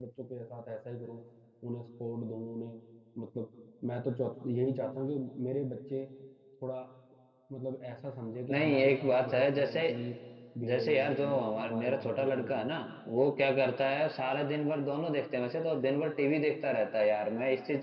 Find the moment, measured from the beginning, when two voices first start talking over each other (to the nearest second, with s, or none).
9 s